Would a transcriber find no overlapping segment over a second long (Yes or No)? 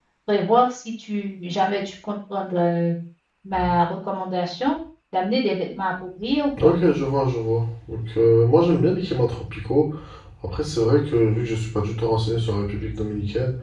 Yes